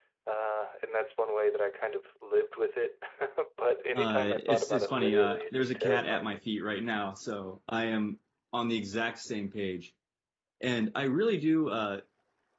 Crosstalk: present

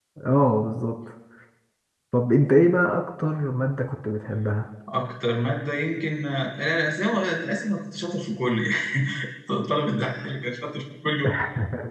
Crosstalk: none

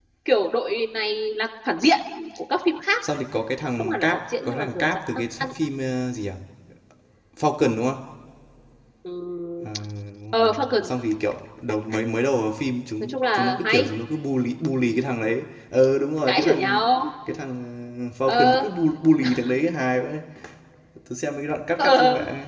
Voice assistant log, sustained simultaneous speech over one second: present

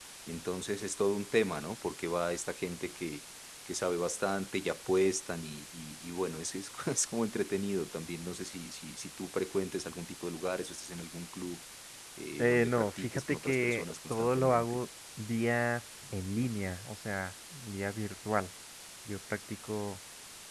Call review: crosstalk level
present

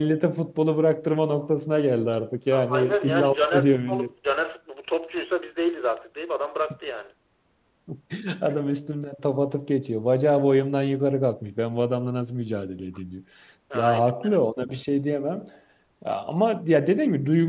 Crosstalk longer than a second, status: present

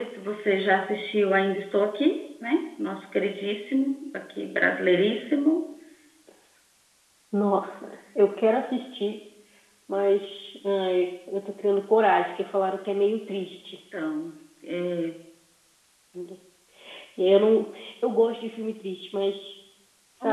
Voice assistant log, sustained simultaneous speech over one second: none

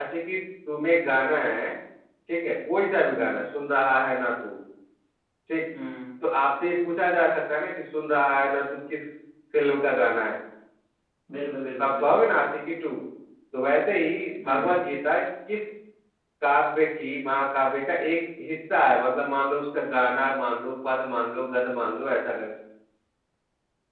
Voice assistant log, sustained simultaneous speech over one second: none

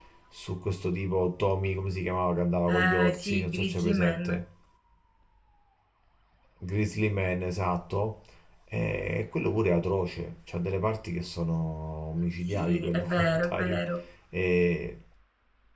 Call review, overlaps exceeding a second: present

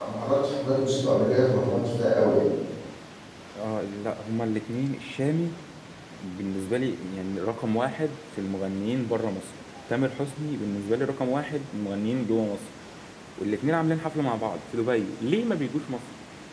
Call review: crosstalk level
none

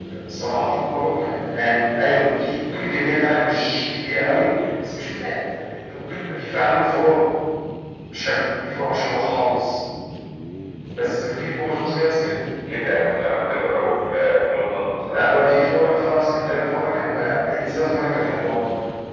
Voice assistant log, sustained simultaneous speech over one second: none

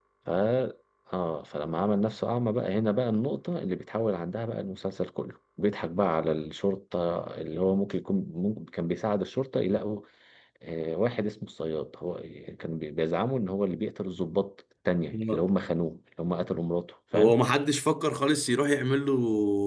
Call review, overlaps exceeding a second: none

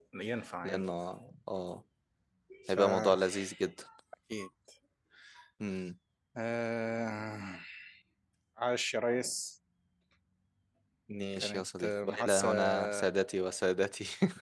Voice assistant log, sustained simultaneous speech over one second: present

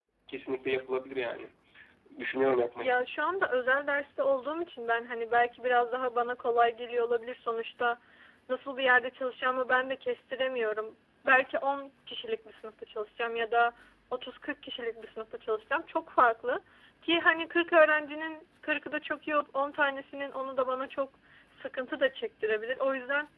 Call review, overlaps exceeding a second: none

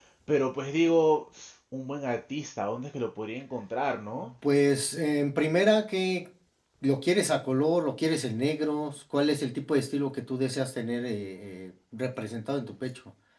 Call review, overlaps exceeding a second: none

